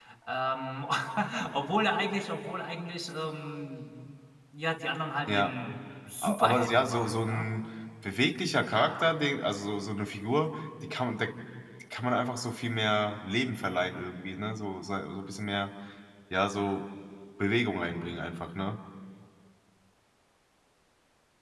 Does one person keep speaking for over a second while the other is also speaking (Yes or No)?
Yes